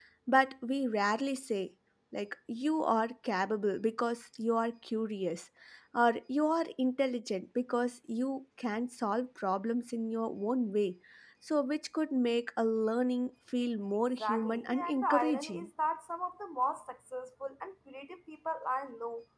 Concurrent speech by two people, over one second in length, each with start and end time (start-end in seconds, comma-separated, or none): 14.2-15.7